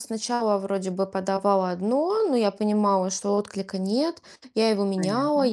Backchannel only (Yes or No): Yes